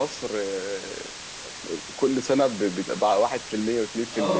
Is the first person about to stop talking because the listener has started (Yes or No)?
Yes